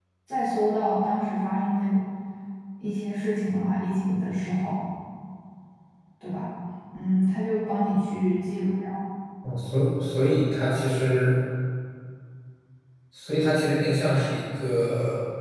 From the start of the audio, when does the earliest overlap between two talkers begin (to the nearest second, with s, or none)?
none